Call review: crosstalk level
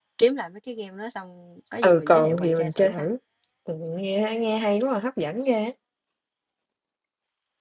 present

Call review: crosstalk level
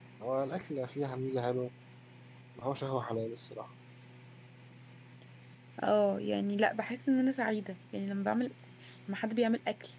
none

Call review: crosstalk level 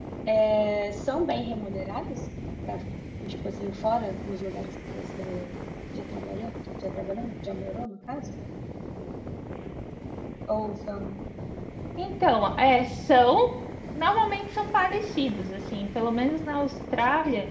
none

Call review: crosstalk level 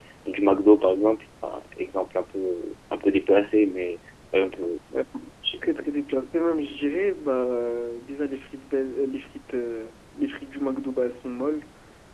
none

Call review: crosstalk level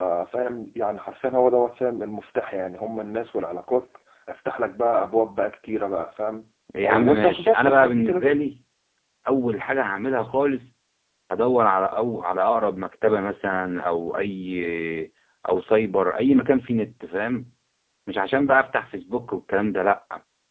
present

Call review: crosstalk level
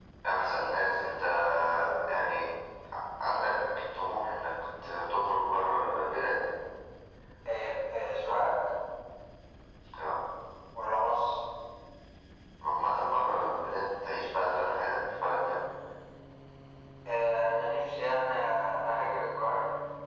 none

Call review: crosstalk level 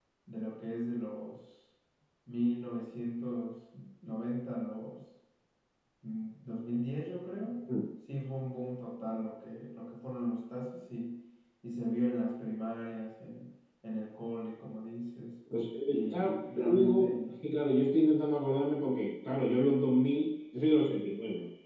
present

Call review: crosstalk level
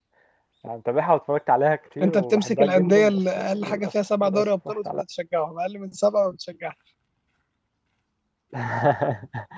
present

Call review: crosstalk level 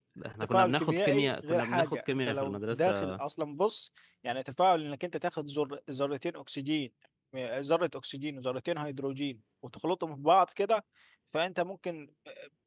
present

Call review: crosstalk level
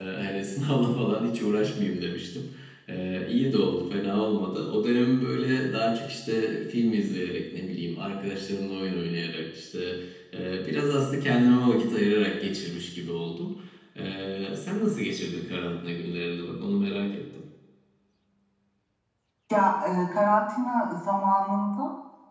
none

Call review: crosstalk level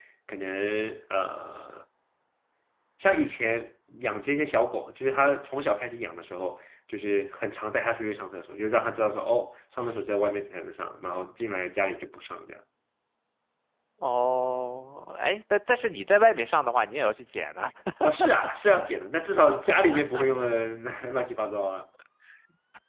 none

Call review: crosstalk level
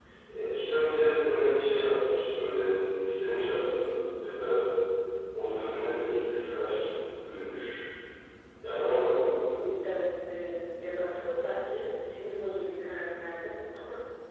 none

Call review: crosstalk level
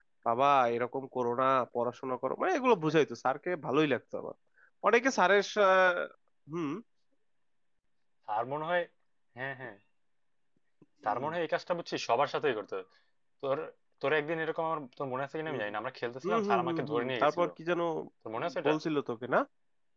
present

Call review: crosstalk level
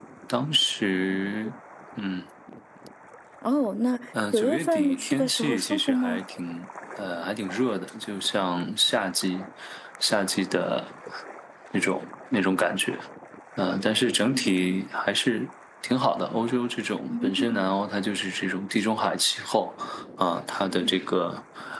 present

